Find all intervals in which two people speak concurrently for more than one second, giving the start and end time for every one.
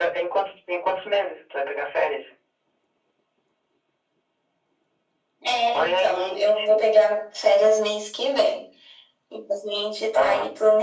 5.7-6.9

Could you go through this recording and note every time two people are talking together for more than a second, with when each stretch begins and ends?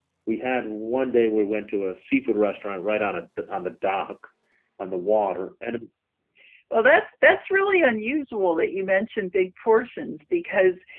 none

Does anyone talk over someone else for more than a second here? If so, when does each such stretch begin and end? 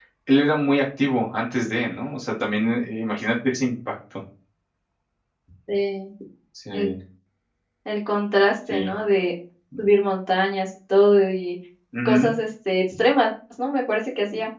none

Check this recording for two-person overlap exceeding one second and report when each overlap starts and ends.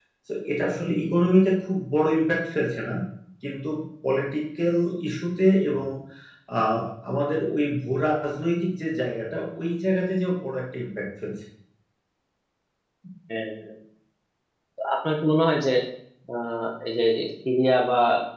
none

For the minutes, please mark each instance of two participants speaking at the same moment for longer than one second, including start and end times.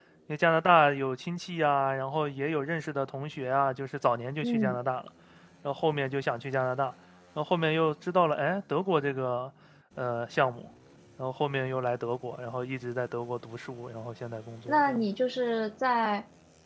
none

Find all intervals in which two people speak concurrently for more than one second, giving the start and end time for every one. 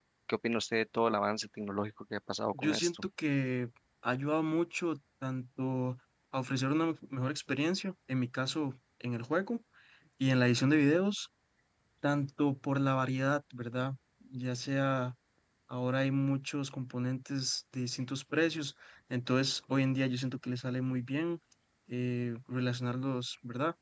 none

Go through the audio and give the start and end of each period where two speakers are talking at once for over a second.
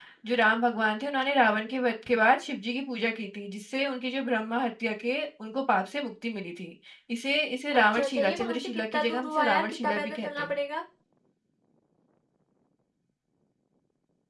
7.7-10.5

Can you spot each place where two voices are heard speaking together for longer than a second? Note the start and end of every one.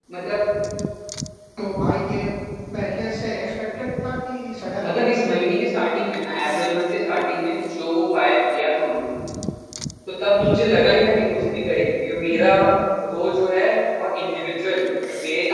none

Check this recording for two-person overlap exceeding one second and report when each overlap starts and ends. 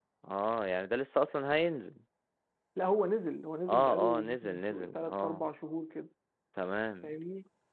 3.7-5.5

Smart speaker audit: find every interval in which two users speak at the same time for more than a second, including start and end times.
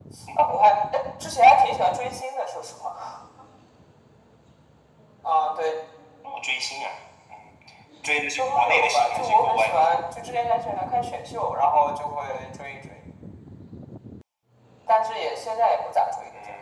8.4-10.0

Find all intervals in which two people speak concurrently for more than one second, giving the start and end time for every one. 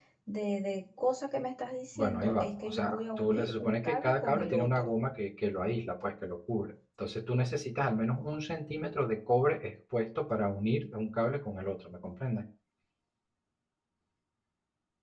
1.9-4.9

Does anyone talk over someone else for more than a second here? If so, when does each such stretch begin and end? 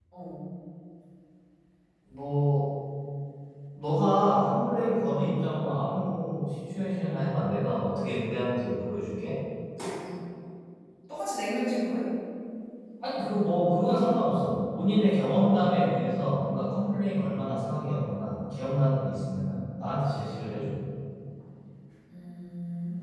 none

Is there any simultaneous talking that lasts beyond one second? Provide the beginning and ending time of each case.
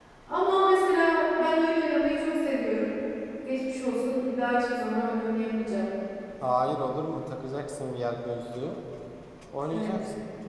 none

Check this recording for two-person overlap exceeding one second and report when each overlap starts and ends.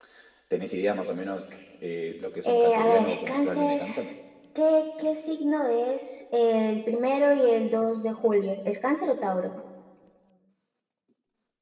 2.4-3.8

